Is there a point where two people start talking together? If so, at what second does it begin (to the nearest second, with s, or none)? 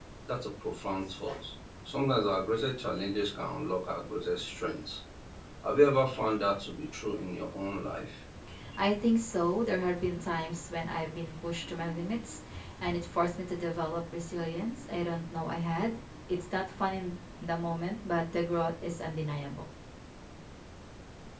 none